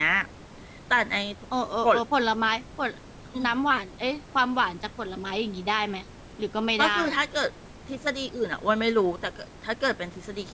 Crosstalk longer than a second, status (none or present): none